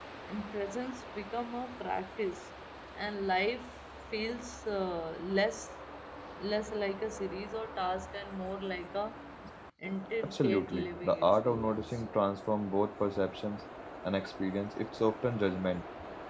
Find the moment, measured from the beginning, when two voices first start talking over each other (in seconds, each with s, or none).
10.2 s